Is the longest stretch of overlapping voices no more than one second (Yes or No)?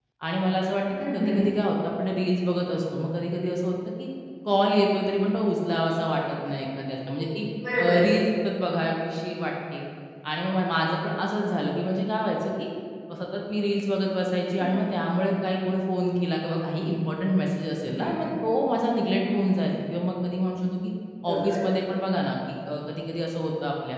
Yes